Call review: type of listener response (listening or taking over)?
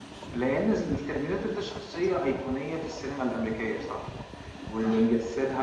listening